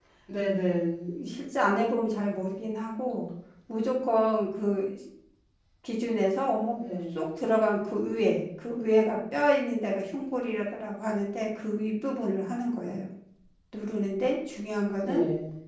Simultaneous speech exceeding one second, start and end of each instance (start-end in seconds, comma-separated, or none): none